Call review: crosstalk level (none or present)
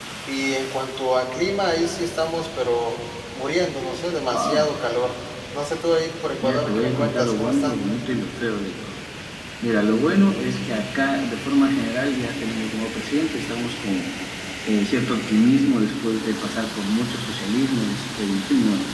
present